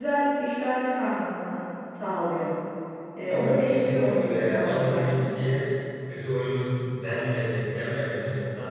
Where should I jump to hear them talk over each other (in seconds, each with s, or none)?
3.3 s